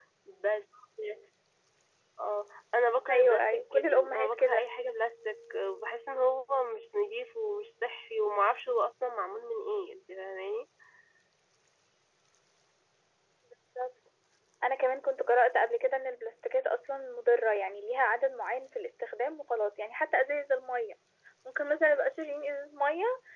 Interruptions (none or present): present